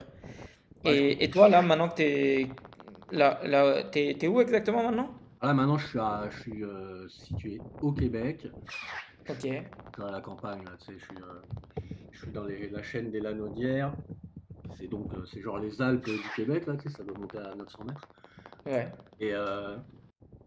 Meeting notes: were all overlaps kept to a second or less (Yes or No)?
Yes